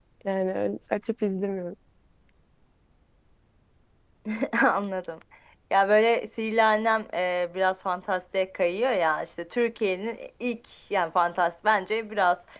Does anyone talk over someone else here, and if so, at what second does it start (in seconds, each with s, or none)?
none